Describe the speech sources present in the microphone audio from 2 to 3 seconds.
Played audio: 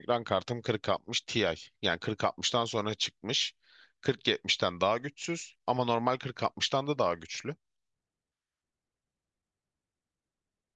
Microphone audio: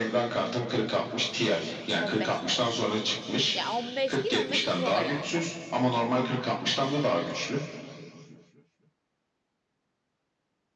both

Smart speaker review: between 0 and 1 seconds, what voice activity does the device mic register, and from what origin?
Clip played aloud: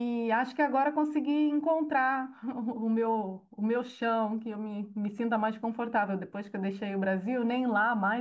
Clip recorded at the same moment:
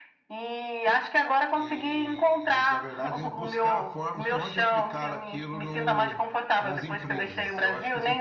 echo only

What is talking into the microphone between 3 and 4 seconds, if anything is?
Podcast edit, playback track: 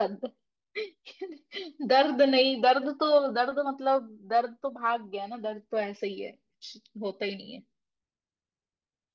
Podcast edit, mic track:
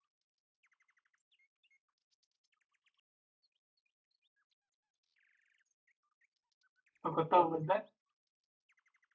neither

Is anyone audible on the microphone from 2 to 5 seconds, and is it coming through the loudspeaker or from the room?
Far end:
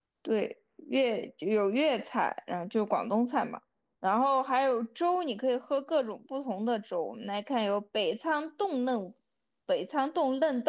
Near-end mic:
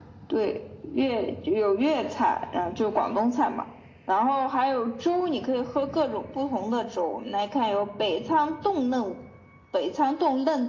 echo only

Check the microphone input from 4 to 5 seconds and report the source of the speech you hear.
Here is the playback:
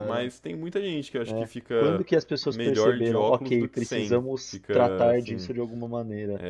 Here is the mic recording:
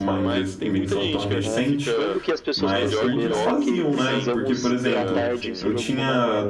both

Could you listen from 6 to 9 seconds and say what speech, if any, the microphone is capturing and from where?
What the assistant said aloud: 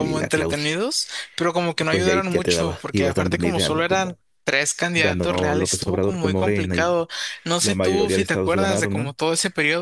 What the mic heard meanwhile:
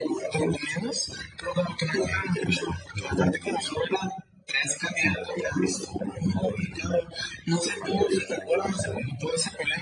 echo only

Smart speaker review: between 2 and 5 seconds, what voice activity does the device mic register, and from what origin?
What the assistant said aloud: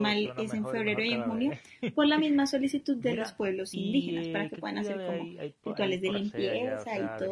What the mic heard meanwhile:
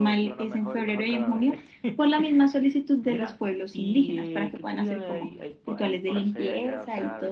echo only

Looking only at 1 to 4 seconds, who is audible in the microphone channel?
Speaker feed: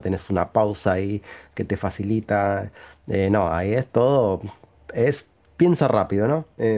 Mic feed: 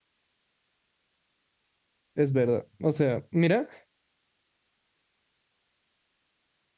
user only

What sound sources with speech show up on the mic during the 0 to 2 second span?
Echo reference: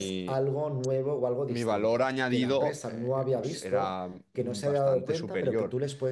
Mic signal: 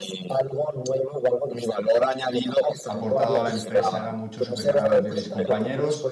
echo only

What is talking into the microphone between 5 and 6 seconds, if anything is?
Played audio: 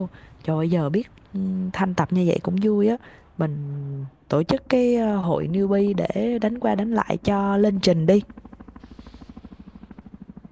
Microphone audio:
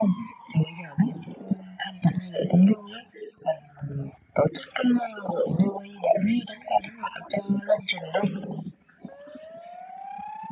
echo only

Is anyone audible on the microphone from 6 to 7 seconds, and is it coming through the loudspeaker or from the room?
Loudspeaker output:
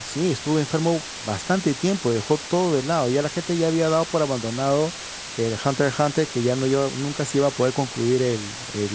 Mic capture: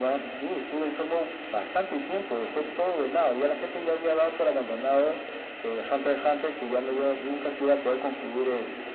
echo only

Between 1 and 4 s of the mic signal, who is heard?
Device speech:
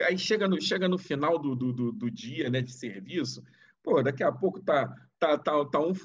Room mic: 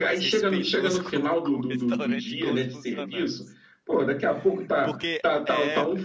both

